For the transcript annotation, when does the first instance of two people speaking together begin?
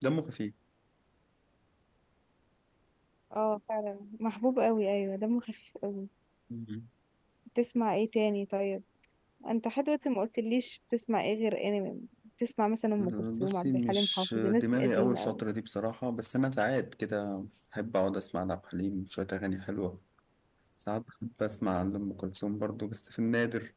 13.0 s

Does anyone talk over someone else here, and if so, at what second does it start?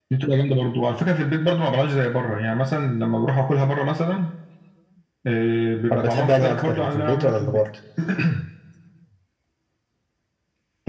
5.9 s

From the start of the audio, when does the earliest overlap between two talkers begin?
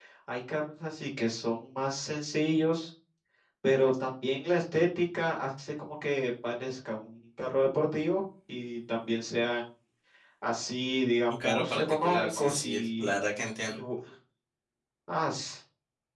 11.3 s

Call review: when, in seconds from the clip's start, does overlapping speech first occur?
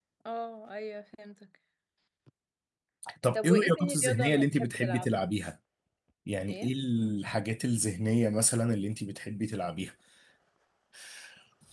3.4 s

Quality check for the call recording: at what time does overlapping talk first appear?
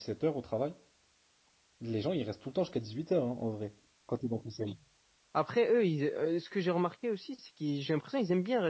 none

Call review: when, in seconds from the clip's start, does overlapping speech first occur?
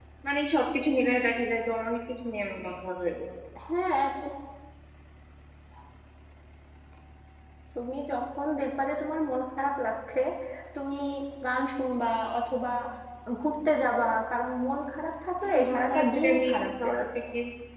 15.4 s

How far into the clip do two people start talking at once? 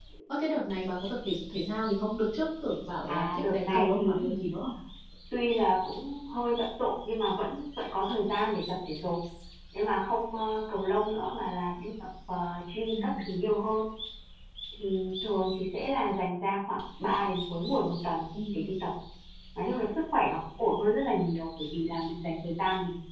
3.1 s

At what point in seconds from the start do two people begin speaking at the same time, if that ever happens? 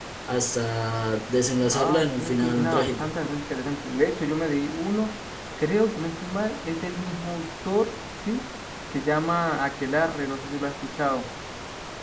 1.6 s

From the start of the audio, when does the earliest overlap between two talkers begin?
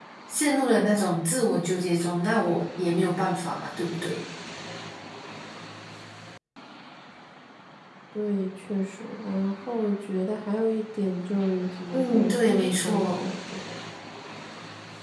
11.9 s

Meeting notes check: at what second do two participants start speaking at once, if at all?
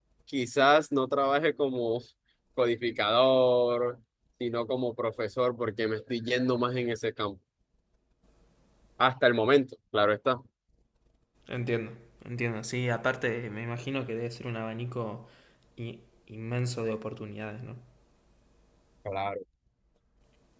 none

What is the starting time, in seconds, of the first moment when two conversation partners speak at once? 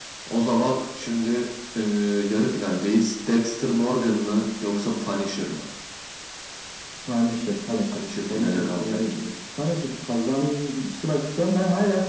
7.9 s

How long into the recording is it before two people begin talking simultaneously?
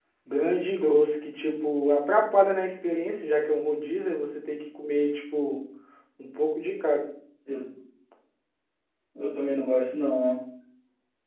none

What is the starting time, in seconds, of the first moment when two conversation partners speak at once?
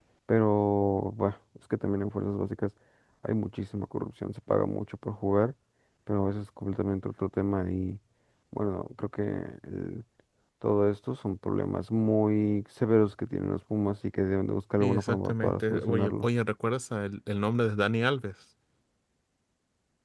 14.8 s

